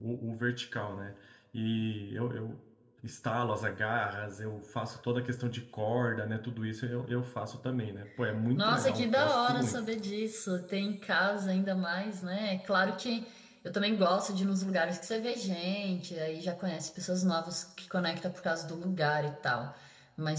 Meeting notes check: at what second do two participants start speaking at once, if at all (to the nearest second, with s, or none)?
9 s